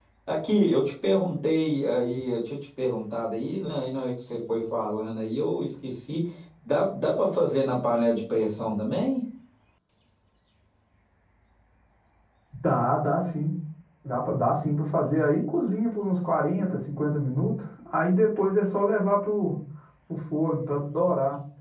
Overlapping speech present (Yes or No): No